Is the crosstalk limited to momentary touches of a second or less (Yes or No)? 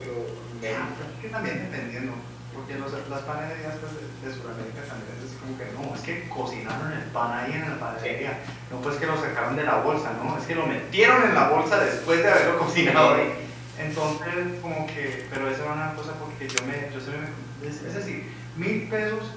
Yes